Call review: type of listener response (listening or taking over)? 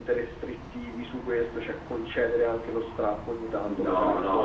taking over